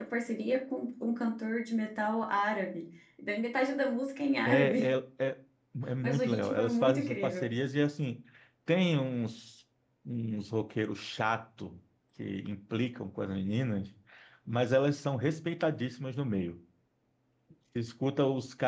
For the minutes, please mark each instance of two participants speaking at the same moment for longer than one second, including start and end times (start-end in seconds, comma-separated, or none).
6.0-7.5